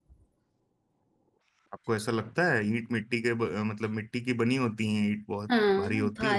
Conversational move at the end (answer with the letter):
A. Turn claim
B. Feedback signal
A